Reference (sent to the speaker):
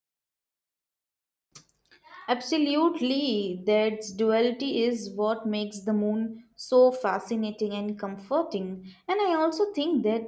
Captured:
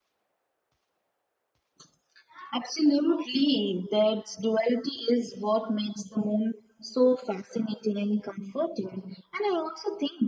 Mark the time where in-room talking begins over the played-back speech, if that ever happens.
none

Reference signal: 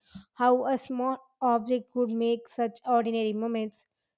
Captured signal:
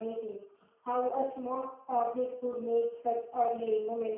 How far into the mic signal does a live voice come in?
none

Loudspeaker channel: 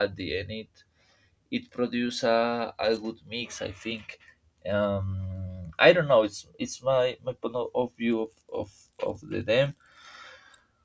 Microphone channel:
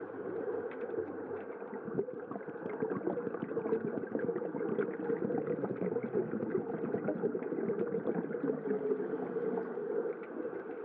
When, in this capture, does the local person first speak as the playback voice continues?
none

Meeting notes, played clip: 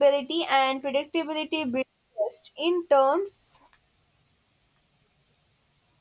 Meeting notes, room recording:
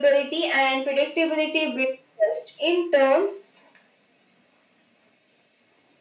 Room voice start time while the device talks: none

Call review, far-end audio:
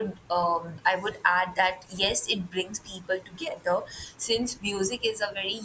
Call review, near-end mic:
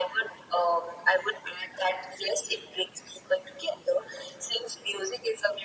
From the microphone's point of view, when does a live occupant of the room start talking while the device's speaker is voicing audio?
none

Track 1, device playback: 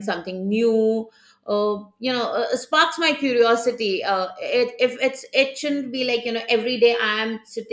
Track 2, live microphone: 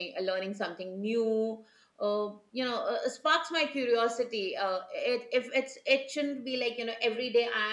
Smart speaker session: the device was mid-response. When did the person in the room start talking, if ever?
none

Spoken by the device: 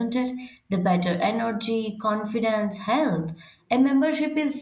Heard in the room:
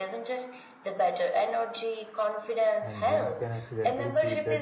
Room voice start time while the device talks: 2.8 s

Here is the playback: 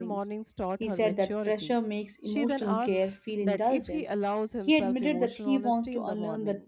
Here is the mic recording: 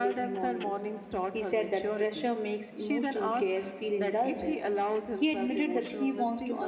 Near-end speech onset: none

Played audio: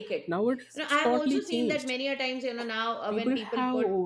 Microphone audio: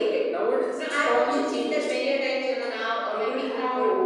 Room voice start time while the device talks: none

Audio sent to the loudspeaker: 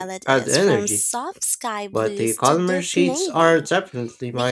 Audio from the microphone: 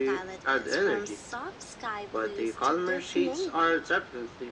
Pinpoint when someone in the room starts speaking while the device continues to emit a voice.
none

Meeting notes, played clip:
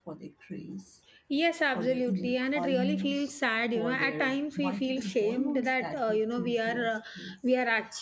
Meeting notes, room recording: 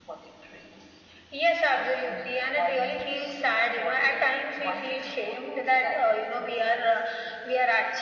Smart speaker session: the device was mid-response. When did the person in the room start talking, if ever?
none

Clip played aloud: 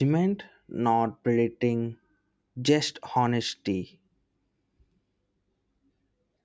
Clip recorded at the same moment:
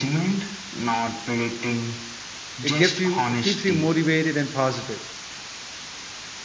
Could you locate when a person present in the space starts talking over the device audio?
2.7 s

